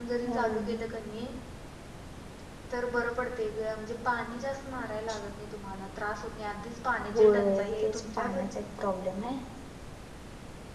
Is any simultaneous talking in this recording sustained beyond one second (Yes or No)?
Yes